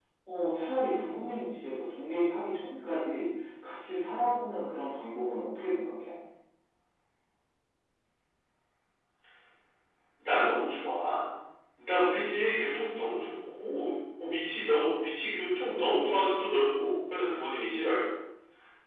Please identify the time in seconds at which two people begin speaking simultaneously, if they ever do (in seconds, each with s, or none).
none